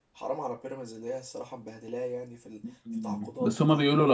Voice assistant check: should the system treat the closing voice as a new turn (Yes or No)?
Yes